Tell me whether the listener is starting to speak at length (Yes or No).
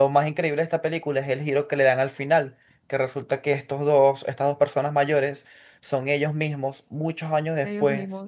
No